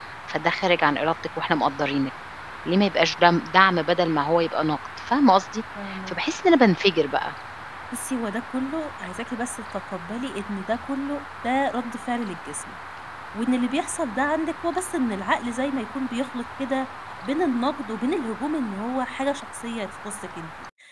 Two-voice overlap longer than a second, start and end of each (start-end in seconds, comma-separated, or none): none